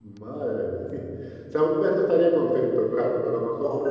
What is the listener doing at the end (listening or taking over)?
taking over